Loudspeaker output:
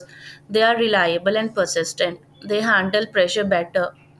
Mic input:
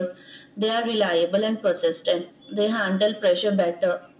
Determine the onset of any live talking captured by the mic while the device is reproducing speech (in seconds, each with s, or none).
none